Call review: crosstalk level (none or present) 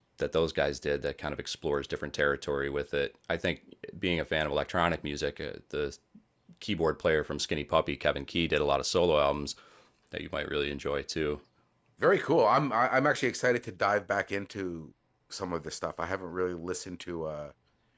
none